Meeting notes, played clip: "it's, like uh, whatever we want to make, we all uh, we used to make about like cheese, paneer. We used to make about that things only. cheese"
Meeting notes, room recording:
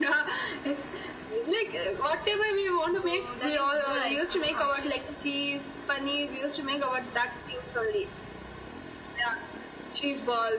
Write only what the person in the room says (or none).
So that is good. I feel hot chips.